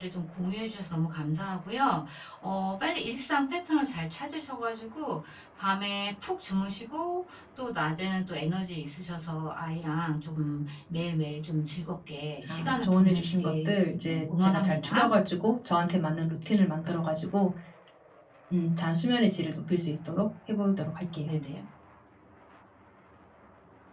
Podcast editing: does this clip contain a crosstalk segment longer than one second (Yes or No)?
Yes